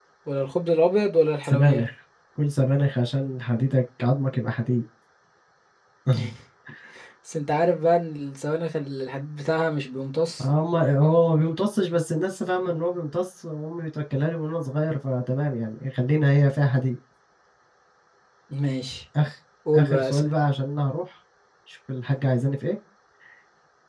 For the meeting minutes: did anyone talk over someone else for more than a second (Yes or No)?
No